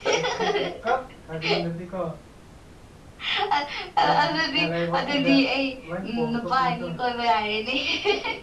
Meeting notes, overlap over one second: present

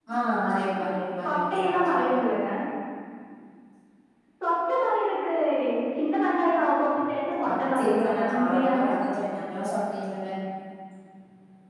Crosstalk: present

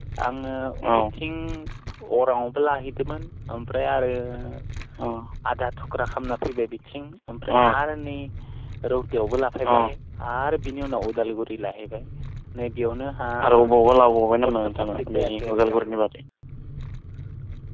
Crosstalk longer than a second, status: present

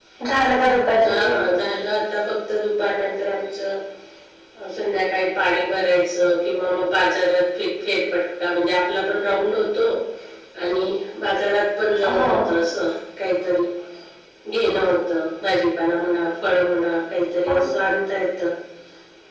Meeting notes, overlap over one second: none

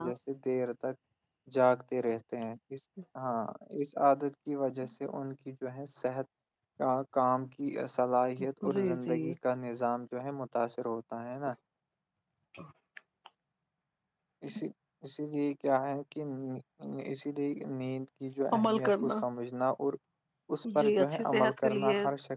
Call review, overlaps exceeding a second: present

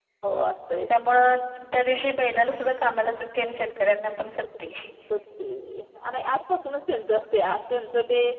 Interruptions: none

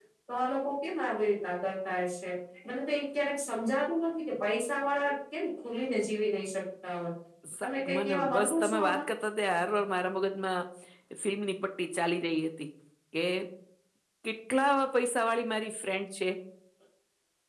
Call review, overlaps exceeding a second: present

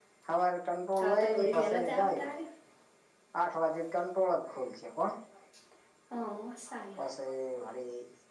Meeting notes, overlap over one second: present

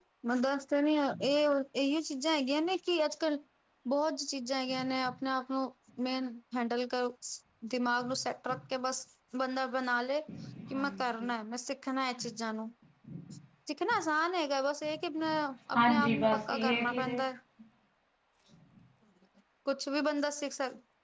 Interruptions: present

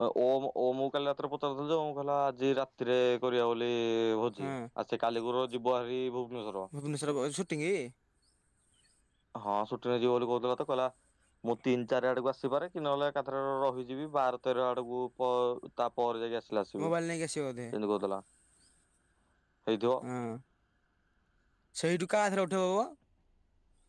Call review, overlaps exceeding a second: none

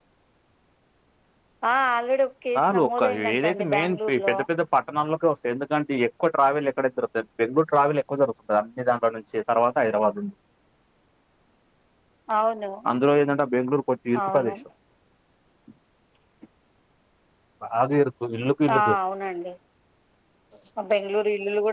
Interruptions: present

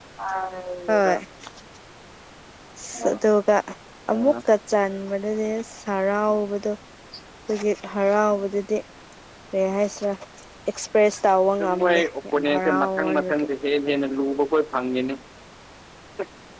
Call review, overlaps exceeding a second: present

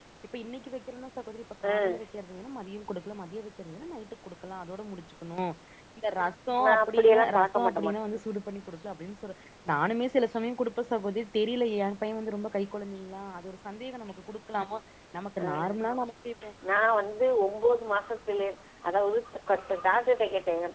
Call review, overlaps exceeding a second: present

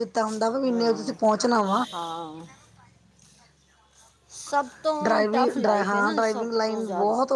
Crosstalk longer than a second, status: present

